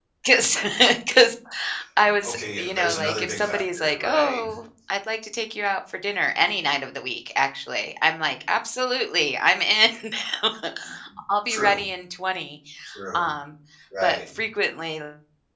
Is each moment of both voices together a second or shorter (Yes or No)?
No